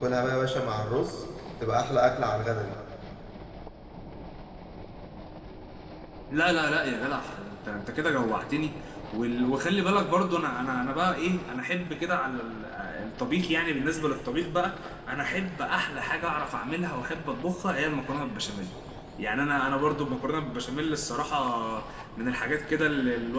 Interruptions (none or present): none